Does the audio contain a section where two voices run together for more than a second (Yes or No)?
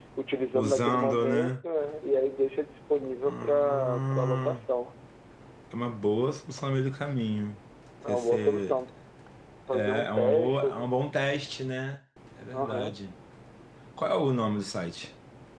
Yes